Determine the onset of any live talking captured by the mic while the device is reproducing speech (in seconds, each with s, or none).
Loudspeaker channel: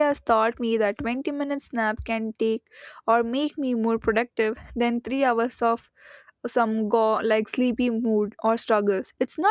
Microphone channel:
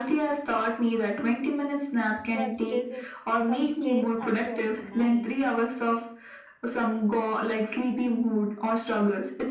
2.3 s